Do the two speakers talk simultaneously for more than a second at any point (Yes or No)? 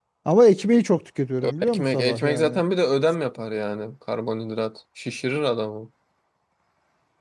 Yes